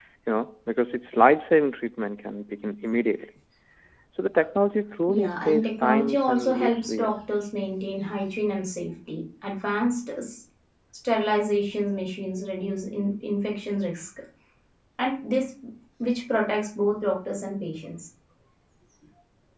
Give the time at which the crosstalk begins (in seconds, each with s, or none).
5.1 s